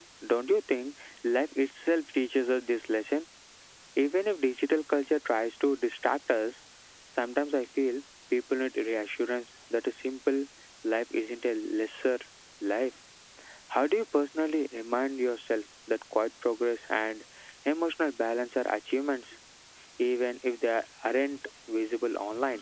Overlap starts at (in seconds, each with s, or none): none